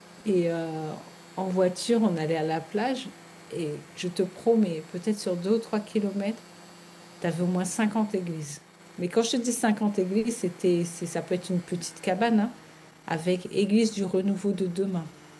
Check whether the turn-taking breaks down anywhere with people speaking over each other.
No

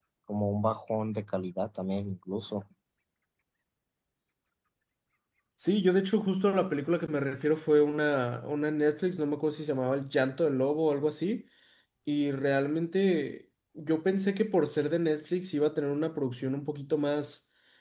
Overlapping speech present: No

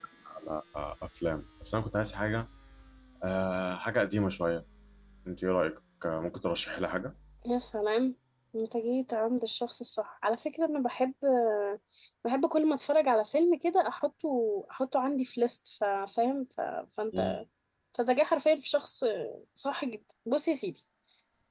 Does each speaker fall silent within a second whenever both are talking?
Yes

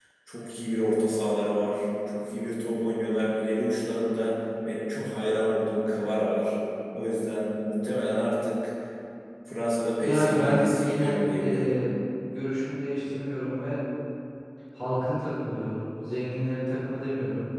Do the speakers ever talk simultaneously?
Yes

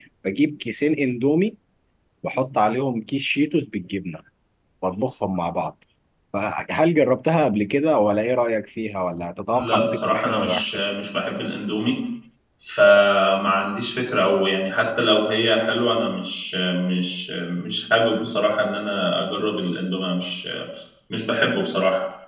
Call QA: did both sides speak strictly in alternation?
No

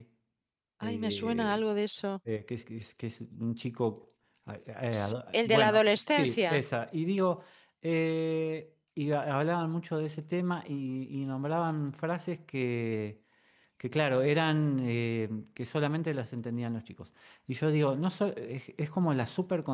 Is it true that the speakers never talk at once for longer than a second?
No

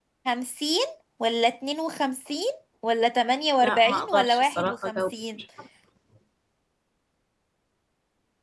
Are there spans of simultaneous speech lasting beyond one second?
Yes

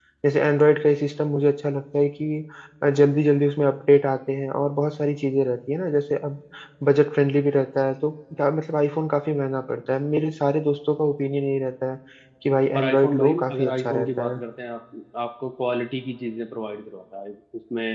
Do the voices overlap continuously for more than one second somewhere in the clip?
Yes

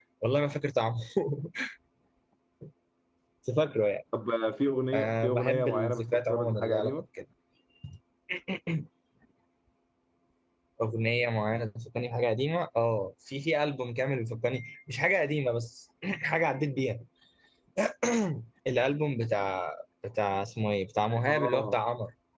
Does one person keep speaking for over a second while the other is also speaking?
Yes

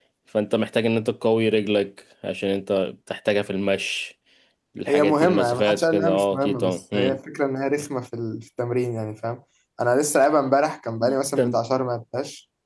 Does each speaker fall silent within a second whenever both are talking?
No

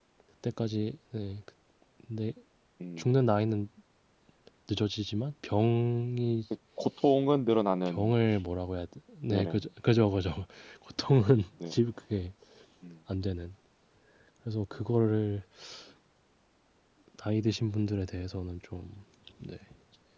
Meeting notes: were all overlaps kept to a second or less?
Yes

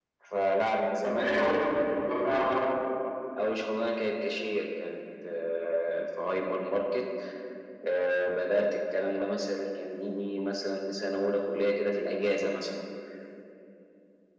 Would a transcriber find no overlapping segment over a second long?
Yes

